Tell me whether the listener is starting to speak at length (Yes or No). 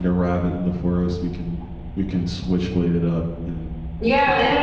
Yes